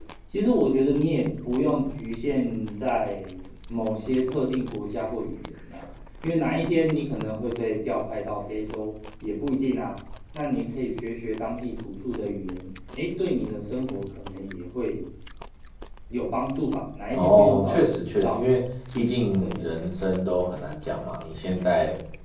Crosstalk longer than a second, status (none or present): present